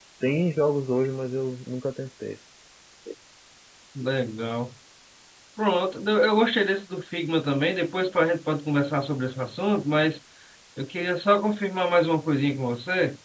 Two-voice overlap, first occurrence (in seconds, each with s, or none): none